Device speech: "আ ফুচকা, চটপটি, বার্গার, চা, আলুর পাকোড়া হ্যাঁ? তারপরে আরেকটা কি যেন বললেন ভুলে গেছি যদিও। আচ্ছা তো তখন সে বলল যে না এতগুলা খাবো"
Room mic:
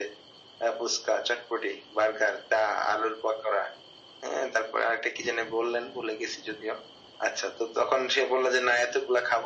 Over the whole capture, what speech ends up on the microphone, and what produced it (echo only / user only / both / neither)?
echo only